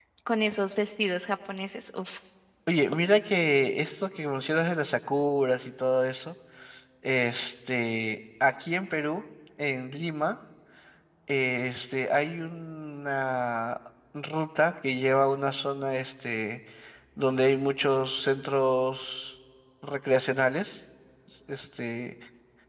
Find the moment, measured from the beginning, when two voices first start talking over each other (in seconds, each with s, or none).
none